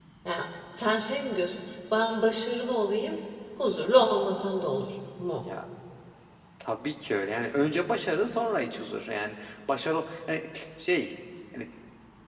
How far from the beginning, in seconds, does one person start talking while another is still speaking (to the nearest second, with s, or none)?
none